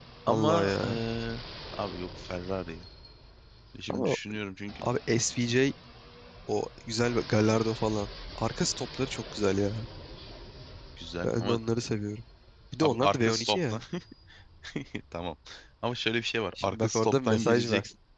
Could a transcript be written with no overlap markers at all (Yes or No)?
No